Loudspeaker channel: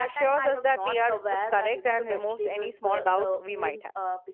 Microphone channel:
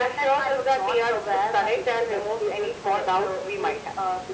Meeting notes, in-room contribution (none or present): none